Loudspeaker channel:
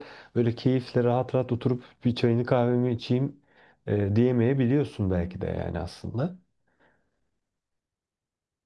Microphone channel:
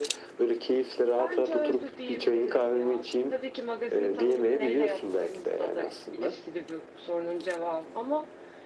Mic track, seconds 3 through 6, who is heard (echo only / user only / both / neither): both